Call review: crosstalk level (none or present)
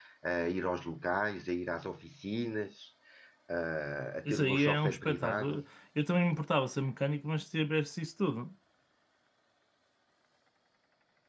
present